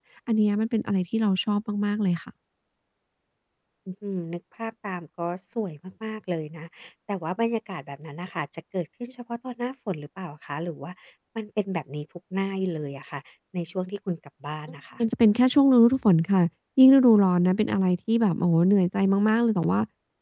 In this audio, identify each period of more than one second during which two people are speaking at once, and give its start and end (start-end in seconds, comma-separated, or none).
none